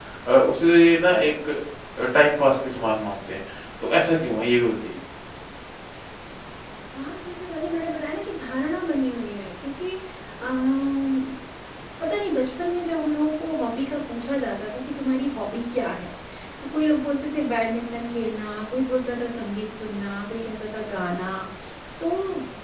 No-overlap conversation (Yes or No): Yes